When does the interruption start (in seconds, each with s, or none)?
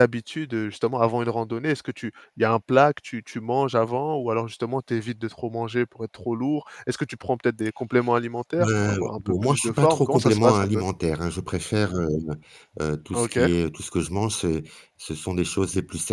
8.6 s